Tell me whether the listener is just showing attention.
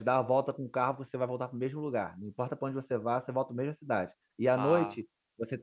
Yes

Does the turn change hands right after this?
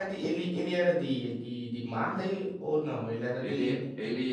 Yes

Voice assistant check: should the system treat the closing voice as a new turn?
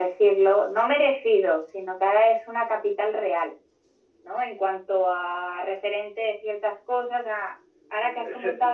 No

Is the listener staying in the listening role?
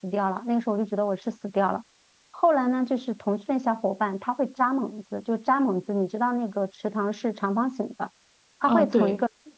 Yes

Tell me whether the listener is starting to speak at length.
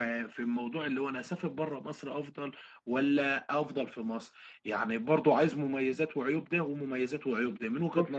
Yes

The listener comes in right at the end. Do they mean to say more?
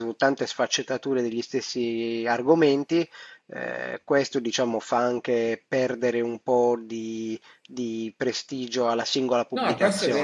Yes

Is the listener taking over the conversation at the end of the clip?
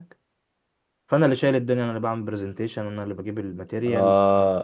Yes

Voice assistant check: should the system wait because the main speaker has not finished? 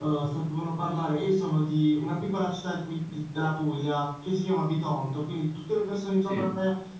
Yes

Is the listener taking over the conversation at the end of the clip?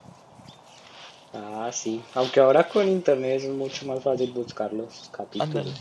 Yes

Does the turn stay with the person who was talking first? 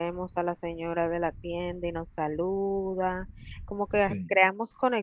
Yes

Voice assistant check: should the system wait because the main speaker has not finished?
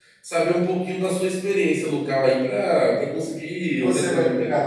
No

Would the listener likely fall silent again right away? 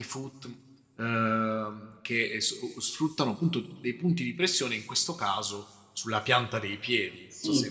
No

